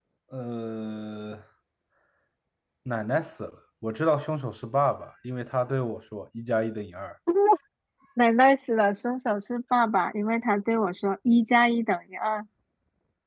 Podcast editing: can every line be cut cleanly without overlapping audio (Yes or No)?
Yes